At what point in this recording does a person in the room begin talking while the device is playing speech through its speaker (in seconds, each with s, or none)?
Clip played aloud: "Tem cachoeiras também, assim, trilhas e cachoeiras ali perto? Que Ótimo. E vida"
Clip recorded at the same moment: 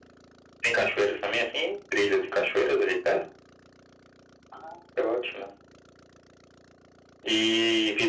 none